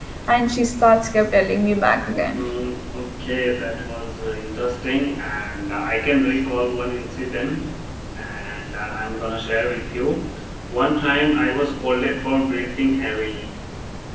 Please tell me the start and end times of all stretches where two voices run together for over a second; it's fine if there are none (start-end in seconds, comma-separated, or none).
none